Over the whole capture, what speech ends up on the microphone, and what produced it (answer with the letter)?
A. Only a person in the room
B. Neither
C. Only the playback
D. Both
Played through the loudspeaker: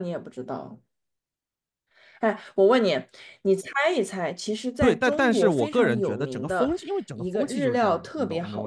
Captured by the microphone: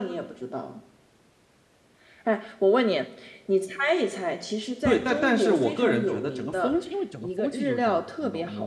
C